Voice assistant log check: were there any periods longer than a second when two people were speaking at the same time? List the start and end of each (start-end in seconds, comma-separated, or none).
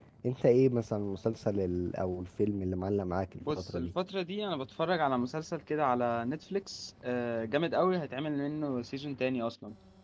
none